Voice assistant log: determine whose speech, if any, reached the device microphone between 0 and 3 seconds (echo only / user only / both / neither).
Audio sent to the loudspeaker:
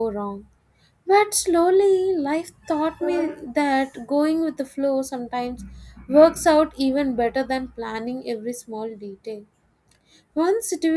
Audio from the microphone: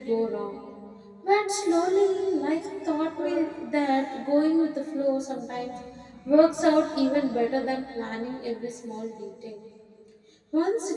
echo only